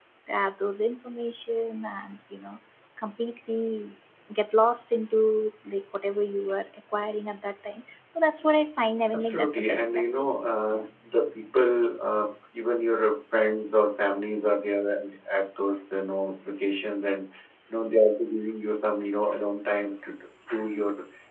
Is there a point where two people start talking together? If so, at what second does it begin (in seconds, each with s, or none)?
9.1 s